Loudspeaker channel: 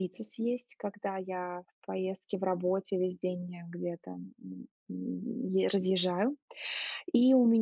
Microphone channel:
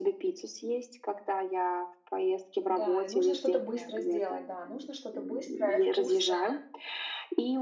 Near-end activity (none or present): present